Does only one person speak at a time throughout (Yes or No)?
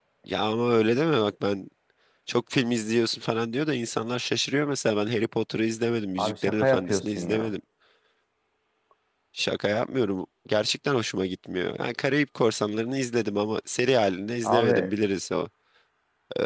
No